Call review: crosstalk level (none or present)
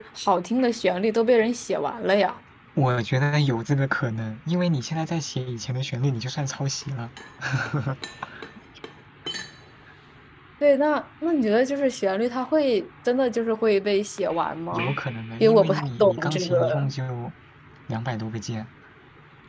present